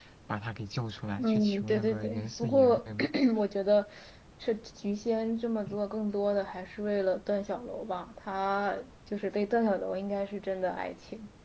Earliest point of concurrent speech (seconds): 1 s

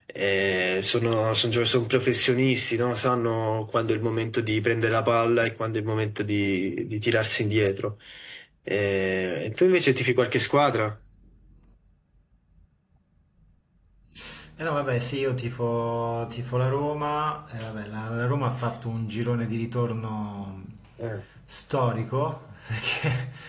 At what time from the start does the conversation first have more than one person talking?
none

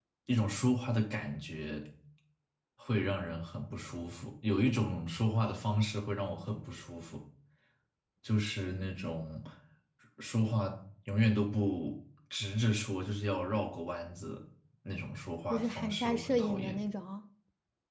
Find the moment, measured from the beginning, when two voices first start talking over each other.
16 s

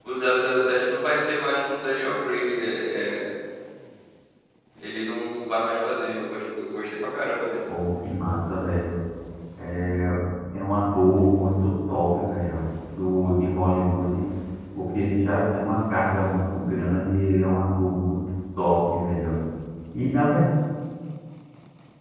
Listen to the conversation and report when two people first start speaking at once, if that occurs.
none

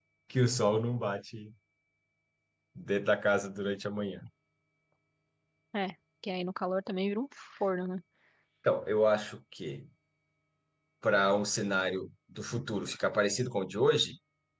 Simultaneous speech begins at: none

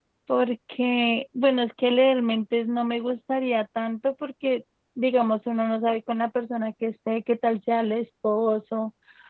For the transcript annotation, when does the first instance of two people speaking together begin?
none

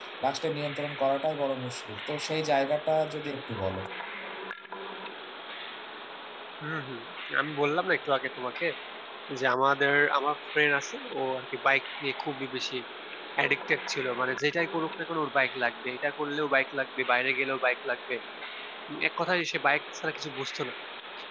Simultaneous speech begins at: none

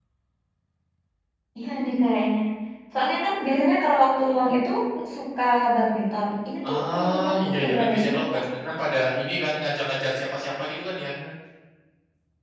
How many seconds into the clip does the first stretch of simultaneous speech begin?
7 s

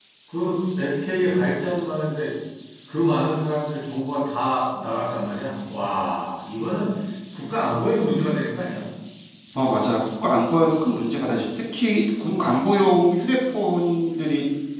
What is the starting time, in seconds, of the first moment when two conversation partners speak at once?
none

